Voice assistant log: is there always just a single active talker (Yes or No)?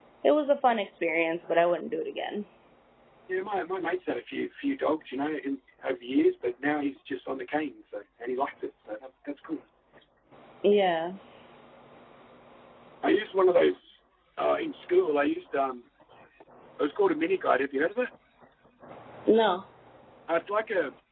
Yes